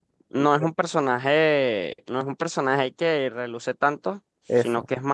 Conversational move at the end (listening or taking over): listening